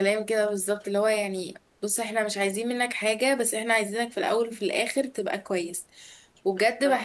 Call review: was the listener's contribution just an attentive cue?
Yes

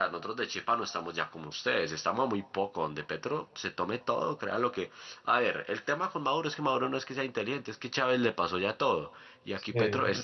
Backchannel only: Yes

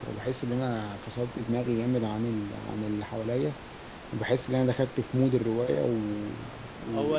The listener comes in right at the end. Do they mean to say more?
No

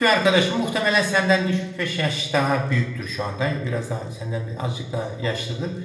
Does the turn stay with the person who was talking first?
Yes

